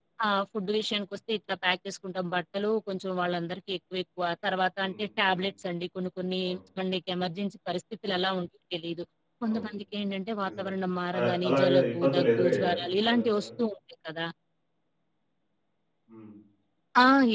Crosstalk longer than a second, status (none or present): present